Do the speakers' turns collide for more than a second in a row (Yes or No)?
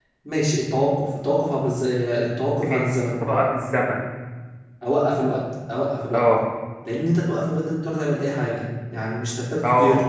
No